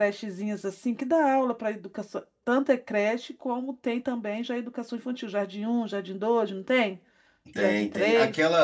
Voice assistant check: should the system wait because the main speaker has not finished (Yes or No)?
No